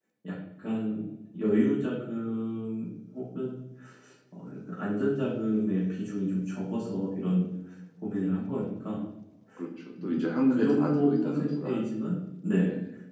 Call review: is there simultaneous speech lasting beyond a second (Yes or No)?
Yes